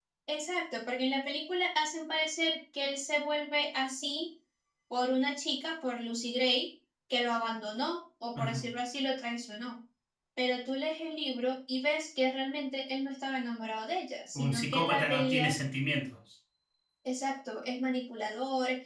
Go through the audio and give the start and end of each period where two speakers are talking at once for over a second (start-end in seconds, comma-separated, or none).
14.3-15.6